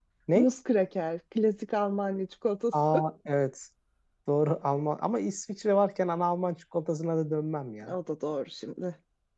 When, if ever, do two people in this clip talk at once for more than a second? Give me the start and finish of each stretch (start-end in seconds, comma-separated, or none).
none